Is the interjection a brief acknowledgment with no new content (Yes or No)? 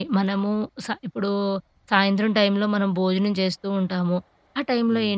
Yes